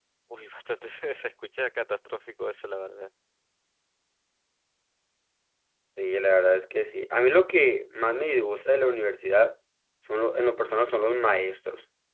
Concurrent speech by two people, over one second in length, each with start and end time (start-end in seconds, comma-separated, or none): none